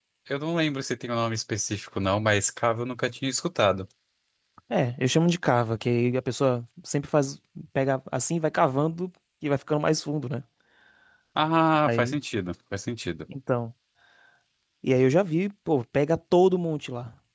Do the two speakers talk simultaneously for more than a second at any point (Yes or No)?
No